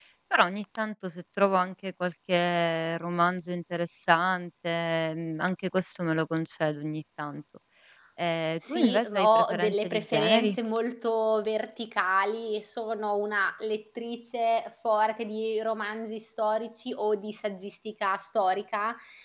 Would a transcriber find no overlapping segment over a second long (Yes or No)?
No